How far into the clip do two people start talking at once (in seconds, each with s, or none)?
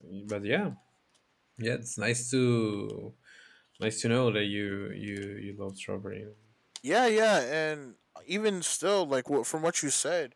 none